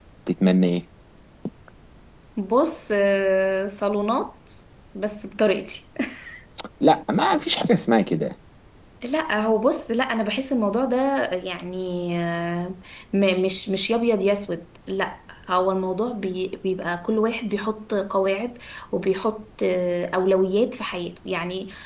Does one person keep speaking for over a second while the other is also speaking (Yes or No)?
No